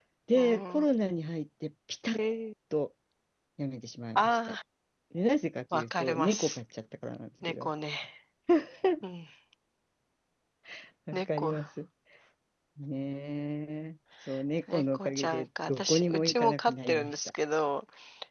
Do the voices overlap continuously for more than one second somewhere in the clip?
Yes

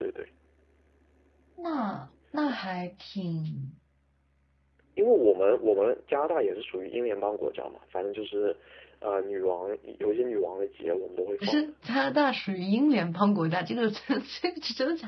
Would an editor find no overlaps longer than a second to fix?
Yes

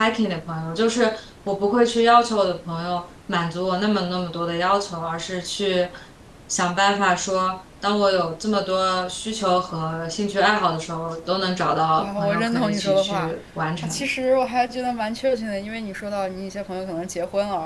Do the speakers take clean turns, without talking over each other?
No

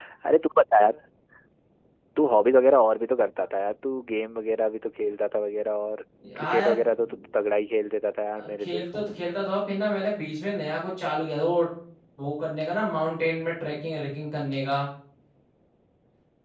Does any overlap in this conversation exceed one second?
No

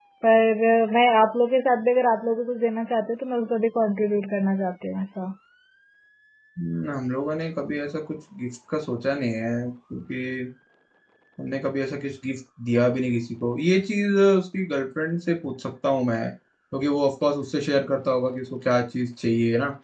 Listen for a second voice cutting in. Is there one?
No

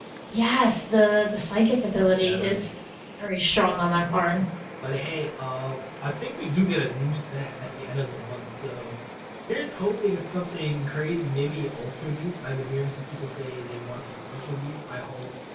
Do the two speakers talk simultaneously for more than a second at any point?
No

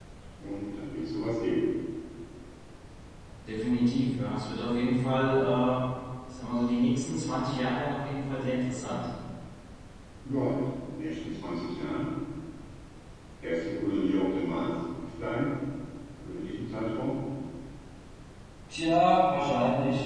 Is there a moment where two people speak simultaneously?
No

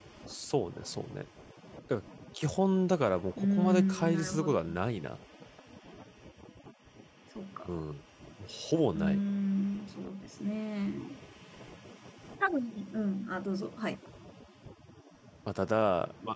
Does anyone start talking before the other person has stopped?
Yes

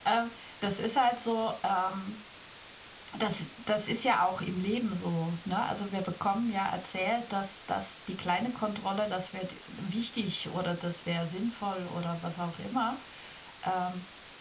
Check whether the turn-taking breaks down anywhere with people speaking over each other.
No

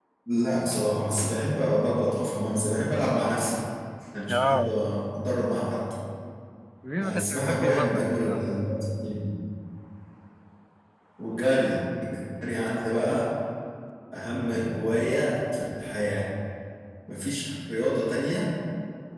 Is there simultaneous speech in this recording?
Yes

